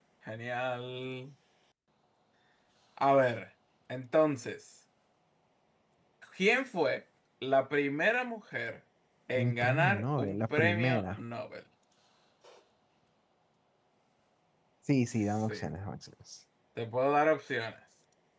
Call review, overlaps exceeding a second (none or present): present